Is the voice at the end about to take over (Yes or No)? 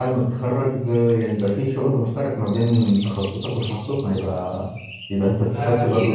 Yes